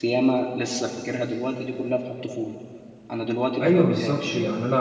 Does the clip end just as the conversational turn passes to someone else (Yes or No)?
Yes